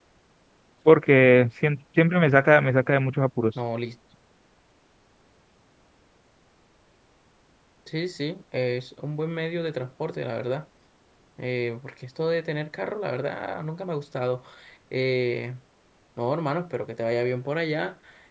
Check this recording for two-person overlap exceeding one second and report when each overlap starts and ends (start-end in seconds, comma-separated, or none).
none